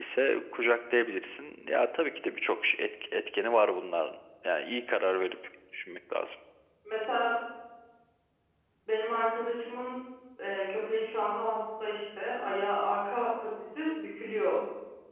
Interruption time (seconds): none

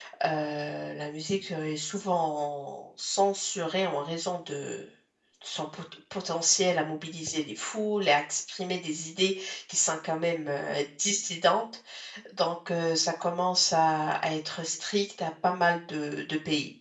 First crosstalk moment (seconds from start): none

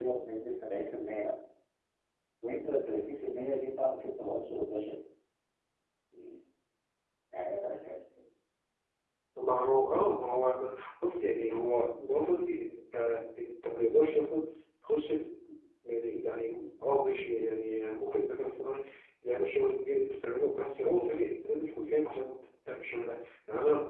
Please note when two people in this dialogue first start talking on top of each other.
none

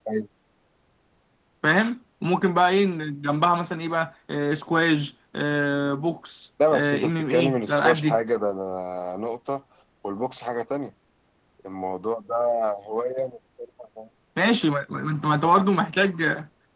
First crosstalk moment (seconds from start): 6.6 s

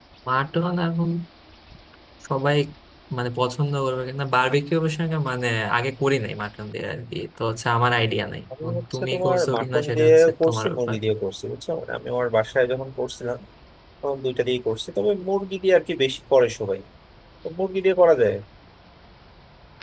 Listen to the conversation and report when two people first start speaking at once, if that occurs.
8.5 s

